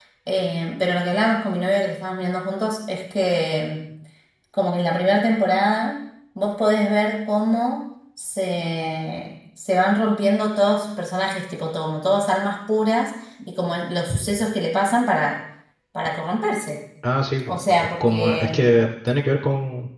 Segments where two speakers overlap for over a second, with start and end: 17.5-18.7

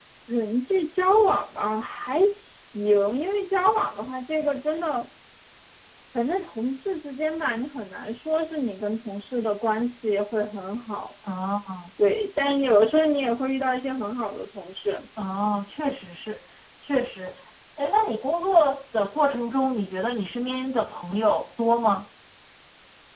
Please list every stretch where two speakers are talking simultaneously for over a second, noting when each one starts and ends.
none

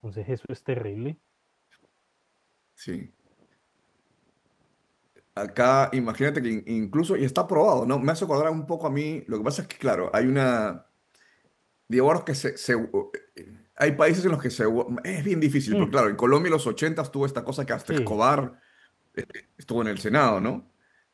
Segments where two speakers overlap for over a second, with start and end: none

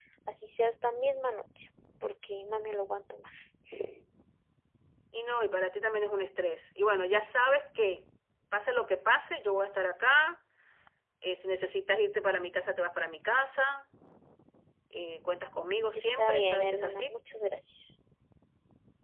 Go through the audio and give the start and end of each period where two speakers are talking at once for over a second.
15.9-17.1

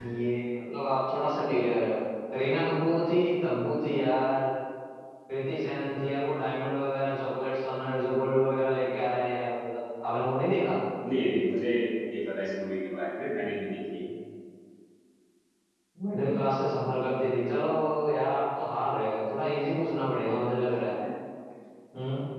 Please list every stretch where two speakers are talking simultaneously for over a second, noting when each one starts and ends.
none

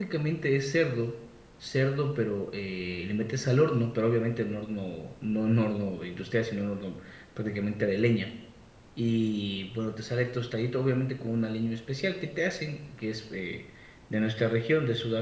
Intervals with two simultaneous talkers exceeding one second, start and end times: none

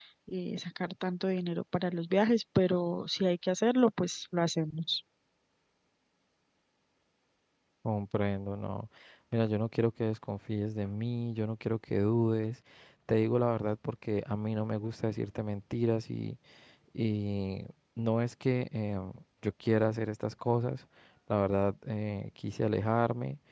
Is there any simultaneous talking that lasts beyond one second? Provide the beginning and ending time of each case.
none

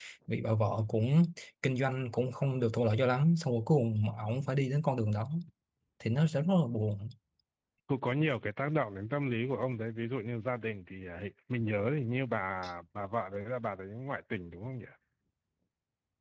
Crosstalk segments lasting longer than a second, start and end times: none

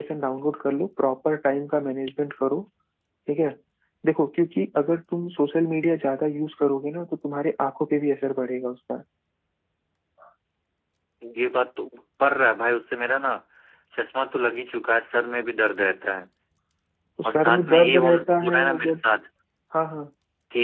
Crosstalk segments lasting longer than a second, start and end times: 17.2-19.0

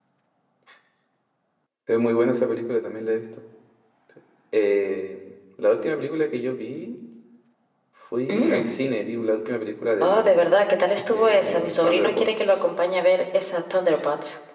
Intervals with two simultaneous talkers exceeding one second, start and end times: 11.1-12.7

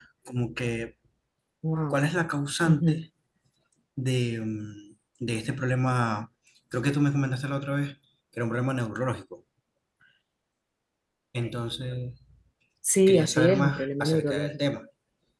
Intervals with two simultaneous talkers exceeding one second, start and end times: 13.1-14.6

